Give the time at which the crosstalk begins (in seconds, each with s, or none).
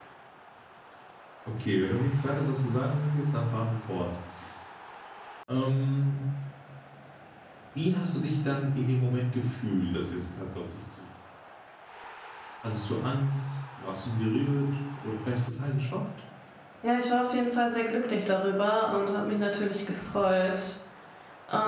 none